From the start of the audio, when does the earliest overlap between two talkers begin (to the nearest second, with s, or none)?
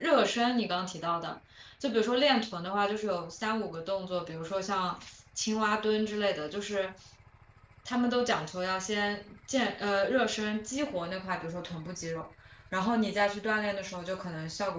none